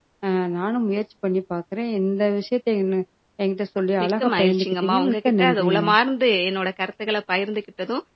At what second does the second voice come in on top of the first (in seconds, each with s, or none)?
4.0 s